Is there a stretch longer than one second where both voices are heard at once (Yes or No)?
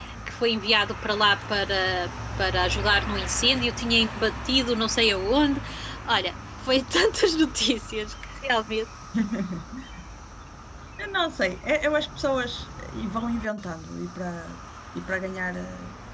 No